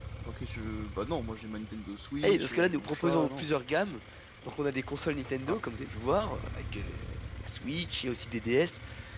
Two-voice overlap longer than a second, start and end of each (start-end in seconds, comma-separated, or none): 2.2-3.5